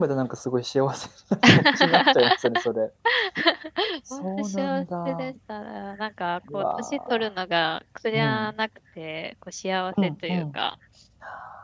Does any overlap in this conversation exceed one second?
Yes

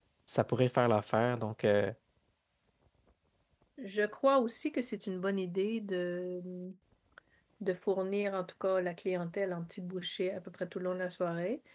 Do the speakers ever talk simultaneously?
No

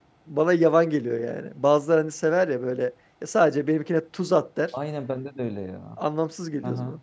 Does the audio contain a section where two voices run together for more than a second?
No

